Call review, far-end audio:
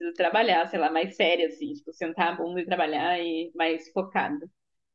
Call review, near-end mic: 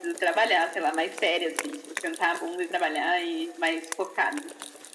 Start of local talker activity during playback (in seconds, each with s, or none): none